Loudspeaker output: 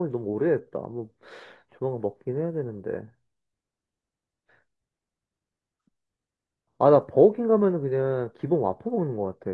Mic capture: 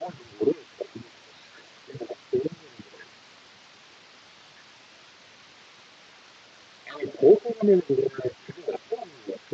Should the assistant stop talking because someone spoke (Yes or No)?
No